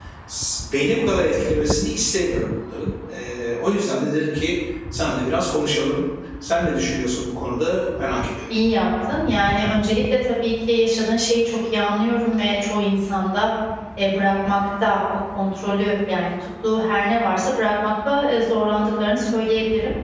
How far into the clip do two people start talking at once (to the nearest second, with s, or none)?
none